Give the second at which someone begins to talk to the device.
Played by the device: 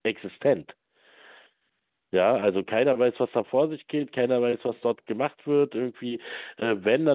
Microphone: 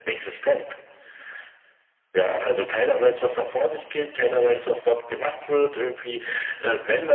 none

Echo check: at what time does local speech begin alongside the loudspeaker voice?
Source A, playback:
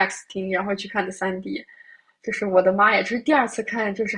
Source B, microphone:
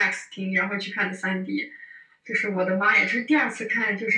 none

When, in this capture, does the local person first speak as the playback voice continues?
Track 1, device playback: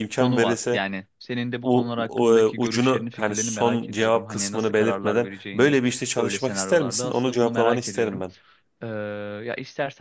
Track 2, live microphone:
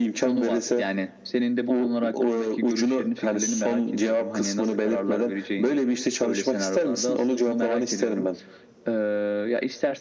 none

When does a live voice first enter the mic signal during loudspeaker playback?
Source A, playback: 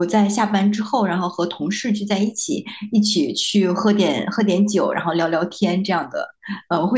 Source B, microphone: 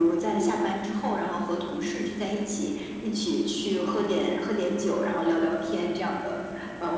none

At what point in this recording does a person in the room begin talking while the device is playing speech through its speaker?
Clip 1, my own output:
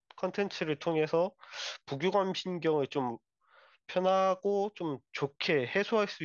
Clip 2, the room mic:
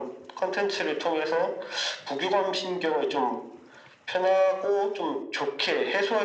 none

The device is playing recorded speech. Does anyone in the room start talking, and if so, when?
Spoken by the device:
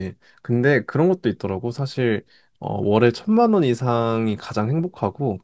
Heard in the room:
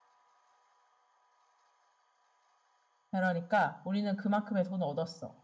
3.1 s

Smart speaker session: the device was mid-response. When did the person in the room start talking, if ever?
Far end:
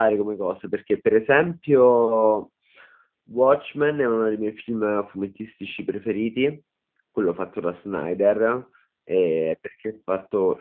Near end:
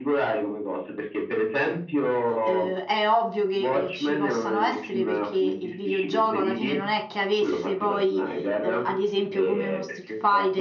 2.4 s

